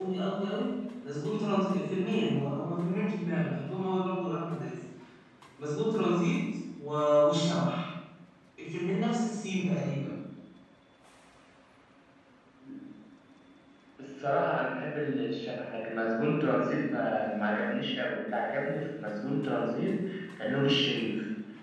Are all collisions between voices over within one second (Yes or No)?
Yes